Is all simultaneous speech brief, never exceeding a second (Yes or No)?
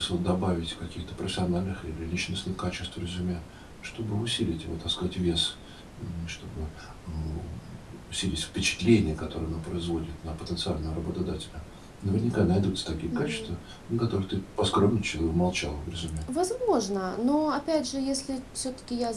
Yes